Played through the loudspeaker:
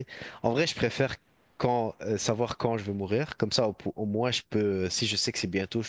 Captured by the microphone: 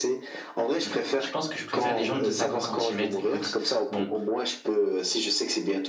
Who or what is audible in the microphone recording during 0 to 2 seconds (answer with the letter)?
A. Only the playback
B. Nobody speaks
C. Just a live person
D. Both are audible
D